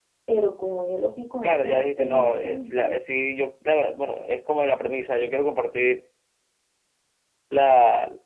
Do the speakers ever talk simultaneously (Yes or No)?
Yes